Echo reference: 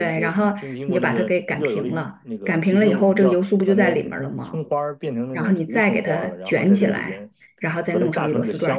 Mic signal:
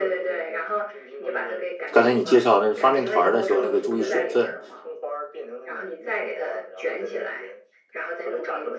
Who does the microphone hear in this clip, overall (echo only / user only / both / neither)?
both